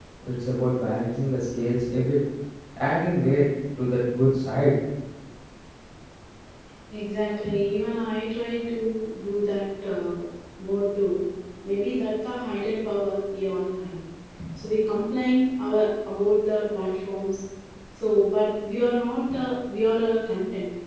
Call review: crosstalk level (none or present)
none